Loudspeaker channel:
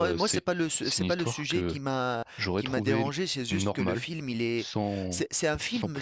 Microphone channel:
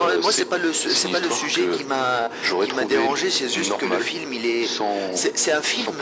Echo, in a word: present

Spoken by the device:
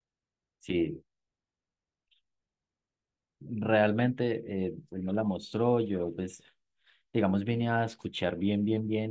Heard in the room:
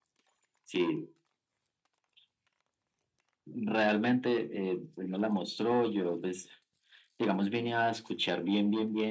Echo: present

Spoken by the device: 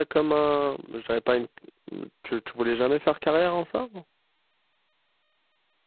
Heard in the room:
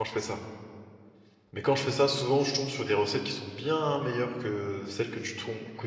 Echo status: none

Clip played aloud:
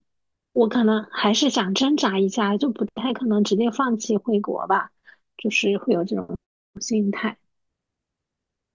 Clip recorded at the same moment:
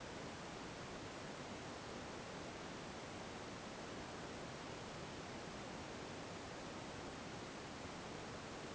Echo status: none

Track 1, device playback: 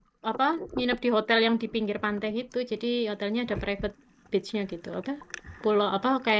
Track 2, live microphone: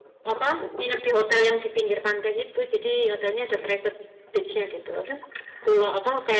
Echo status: present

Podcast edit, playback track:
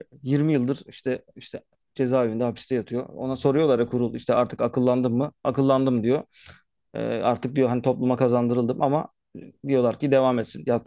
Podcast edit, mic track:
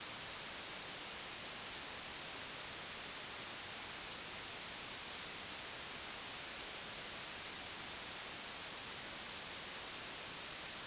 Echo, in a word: none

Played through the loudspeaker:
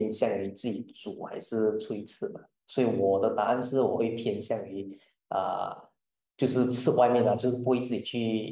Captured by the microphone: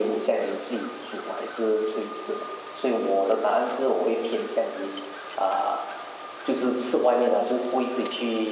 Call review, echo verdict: present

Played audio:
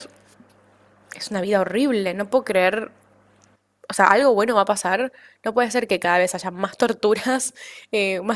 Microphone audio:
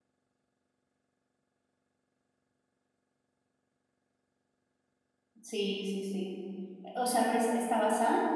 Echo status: none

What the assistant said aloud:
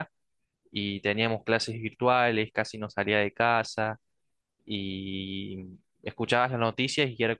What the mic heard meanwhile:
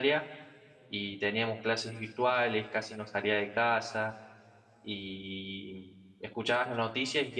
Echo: present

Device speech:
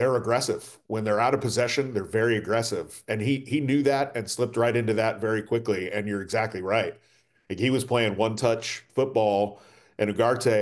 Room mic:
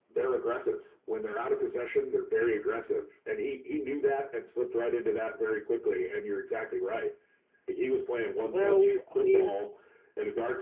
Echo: present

